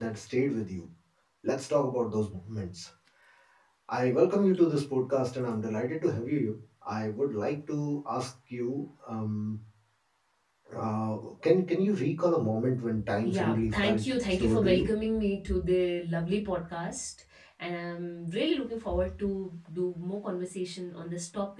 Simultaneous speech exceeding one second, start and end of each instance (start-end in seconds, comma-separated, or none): 13.2-14.9